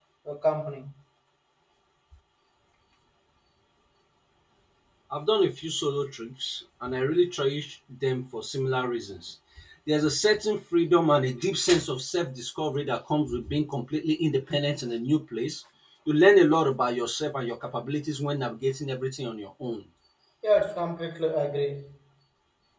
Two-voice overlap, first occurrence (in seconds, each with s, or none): none